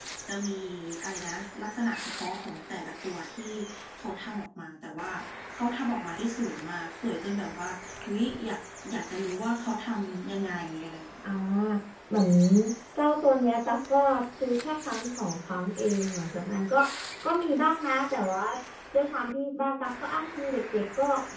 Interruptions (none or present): none